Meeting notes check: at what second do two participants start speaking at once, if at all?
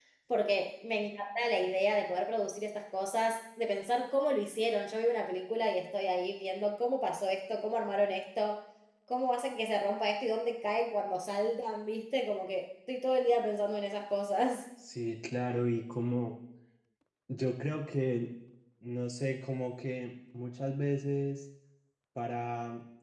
none

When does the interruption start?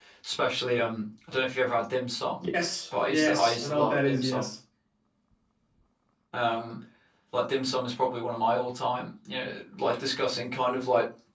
2.9 s

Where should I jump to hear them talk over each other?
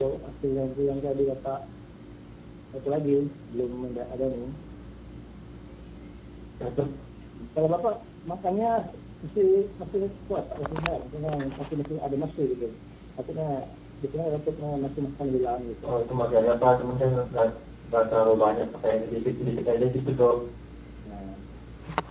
none

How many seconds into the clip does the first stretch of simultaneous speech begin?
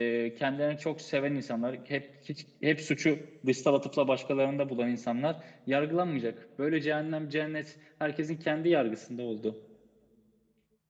none

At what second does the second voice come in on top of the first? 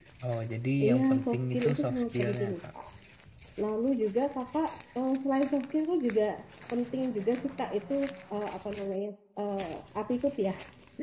0.8 s

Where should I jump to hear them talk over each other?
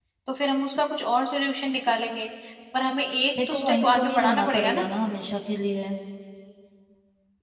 3.5 s

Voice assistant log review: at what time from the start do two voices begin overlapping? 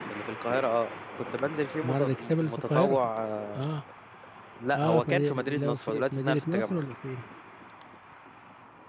1.8 s

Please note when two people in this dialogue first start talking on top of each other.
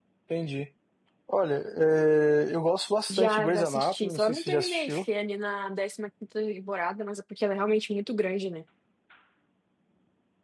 3.1 s

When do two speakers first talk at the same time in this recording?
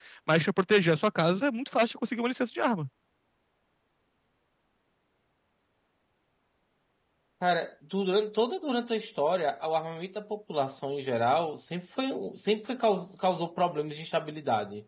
none

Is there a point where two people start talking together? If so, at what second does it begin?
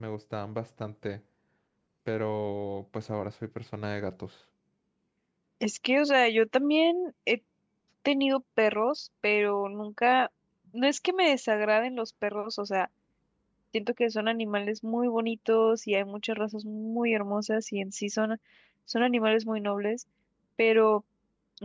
none

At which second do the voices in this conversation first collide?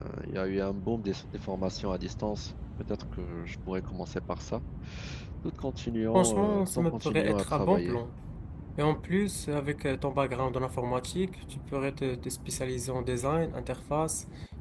6.1 s

